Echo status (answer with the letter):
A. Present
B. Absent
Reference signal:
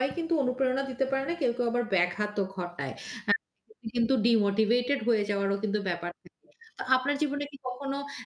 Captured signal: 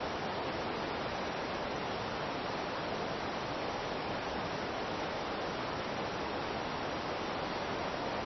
B